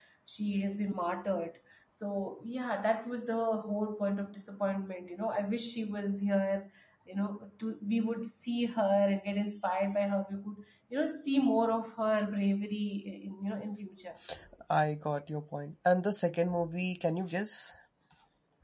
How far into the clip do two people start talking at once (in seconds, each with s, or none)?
none